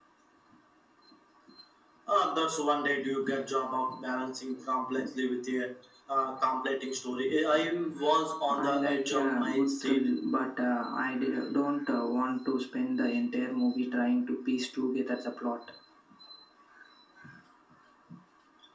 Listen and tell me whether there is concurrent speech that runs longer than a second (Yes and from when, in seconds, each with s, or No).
Yes, from 8.6 s